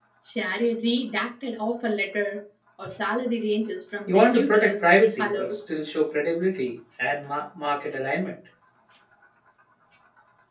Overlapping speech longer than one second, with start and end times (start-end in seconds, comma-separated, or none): 4.1-5.6